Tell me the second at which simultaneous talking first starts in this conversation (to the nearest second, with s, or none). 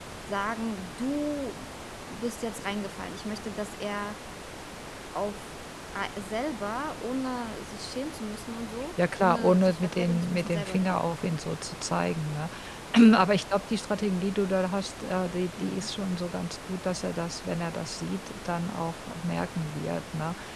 9 s